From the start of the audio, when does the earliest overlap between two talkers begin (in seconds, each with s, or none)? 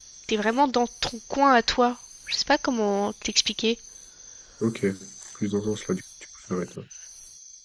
none